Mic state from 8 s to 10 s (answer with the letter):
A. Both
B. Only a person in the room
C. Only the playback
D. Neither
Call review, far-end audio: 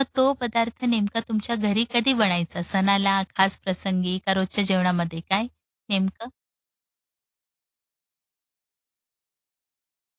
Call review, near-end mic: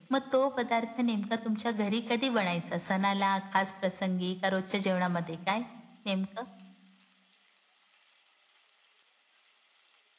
D